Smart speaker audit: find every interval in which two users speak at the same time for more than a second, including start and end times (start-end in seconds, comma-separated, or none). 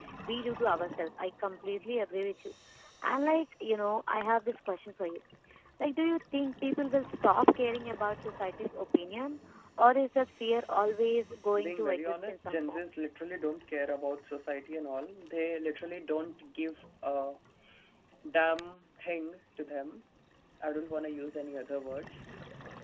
11.6-12.8